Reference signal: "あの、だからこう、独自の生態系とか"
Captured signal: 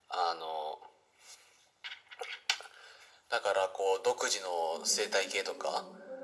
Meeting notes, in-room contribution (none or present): present